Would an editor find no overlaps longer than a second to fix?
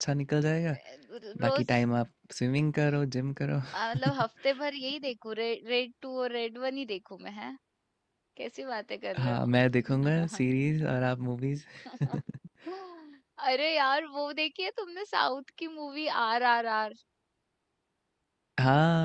Yes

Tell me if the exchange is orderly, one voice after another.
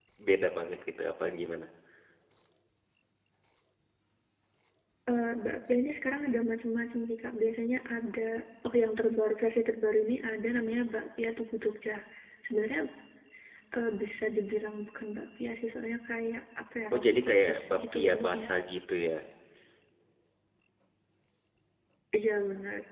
No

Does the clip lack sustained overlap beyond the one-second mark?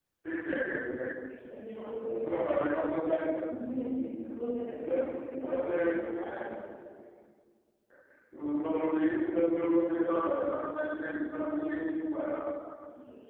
Yes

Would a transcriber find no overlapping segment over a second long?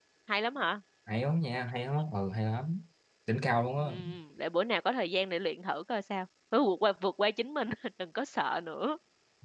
Yes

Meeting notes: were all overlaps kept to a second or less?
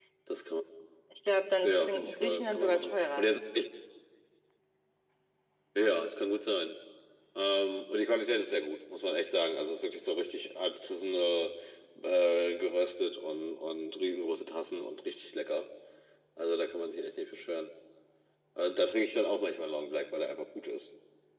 No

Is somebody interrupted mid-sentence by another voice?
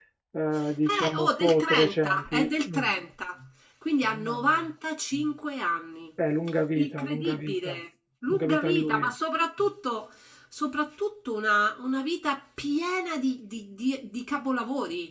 Yes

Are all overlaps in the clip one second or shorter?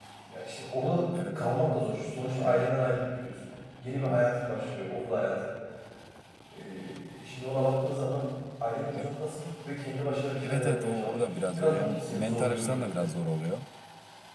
No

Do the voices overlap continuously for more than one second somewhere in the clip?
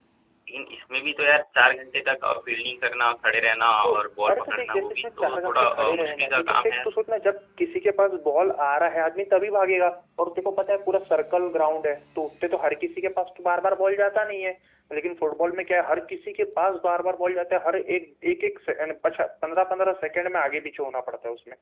Yes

